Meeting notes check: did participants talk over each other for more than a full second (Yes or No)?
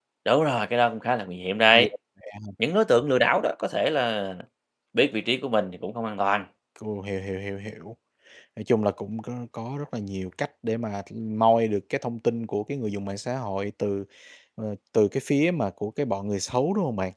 No